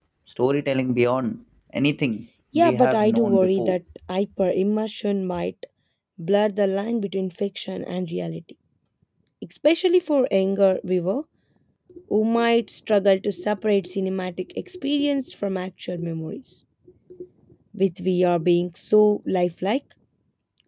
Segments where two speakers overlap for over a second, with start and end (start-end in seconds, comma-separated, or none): 2.5-3.8